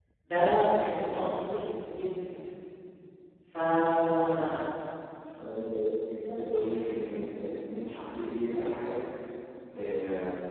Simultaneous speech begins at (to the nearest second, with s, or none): none